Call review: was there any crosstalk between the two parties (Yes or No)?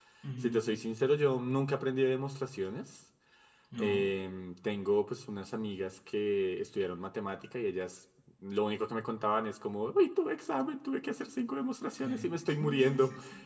Yes